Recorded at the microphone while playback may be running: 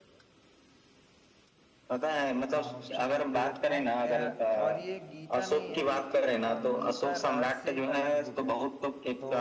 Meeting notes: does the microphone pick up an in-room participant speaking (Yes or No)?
Yes